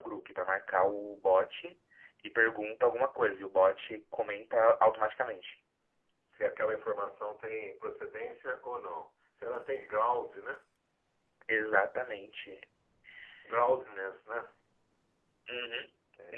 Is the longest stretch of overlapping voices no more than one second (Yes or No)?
Yes